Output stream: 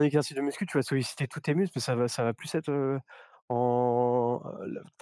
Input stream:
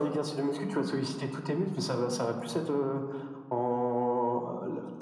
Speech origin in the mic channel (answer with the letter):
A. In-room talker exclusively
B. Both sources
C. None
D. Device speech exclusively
D